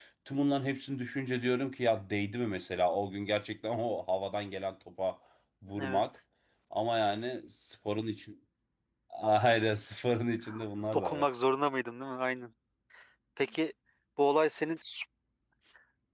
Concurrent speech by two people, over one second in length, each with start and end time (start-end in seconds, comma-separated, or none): none